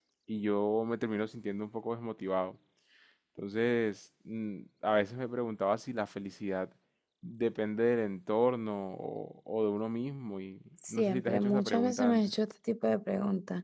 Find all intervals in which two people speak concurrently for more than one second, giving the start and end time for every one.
10.9-12.2

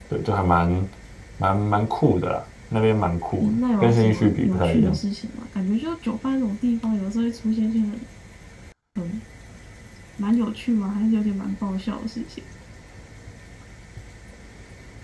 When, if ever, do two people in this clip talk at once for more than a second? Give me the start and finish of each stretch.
3.4-5.0

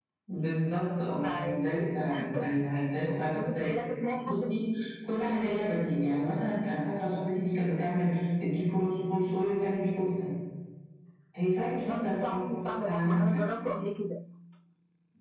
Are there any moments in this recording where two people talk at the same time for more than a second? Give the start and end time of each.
11.8-13.2

